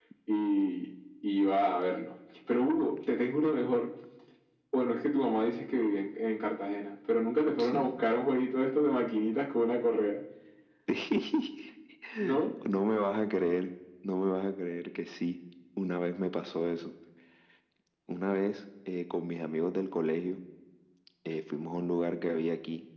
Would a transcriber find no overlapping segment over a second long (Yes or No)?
Yes